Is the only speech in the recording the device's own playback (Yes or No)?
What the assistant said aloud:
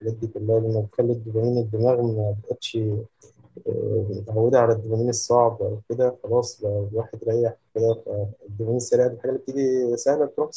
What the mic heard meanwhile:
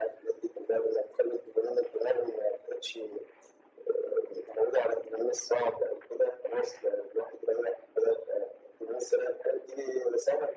Yes